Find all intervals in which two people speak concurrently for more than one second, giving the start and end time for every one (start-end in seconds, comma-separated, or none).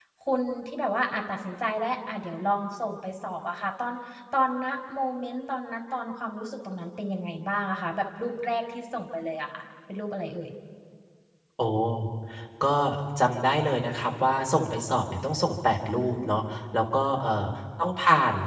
none